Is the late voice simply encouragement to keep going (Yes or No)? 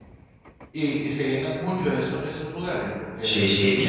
No